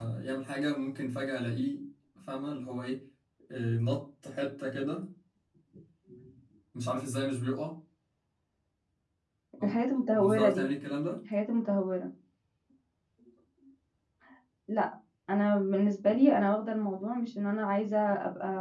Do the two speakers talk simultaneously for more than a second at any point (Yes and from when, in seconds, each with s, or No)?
No